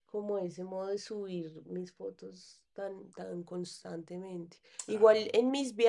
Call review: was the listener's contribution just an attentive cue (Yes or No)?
Yes